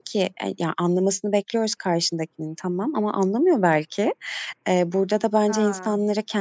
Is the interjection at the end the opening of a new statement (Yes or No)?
No